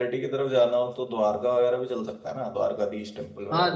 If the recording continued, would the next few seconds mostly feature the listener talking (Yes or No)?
Yes